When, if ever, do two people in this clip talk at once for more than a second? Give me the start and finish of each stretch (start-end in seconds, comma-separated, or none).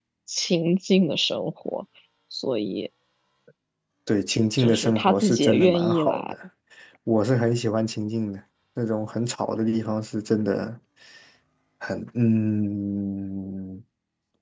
4.6-6.3